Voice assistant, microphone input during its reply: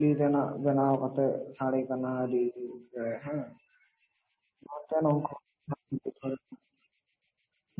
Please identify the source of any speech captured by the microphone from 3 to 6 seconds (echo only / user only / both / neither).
user only